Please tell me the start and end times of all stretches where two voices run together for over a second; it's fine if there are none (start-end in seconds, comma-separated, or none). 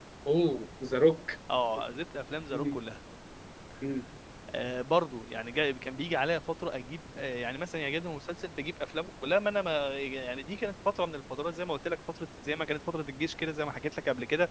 none